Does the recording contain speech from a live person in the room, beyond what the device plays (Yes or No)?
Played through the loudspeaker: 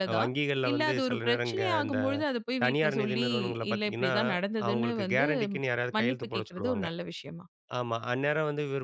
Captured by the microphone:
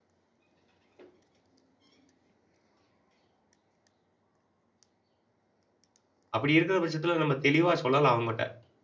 Yes